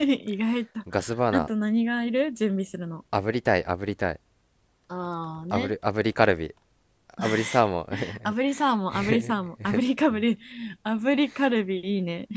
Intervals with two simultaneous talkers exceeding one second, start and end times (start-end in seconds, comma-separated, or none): none